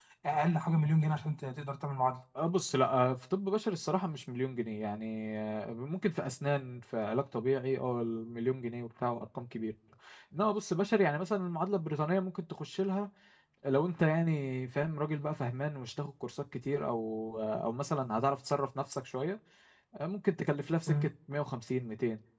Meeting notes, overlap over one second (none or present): none